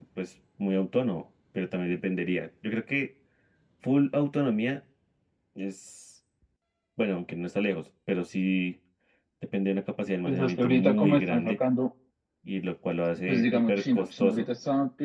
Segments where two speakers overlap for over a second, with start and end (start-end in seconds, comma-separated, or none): 10.3-11.6, 13.3-14.5